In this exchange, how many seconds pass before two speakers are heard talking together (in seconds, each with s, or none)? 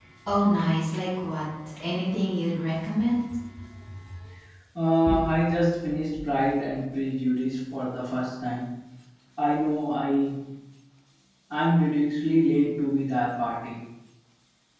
none